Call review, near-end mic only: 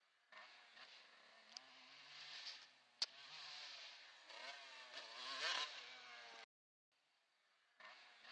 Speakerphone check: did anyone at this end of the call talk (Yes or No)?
No